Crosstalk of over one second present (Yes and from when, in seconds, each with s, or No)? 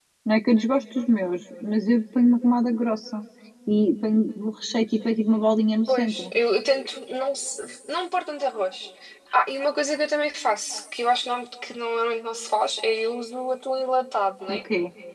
No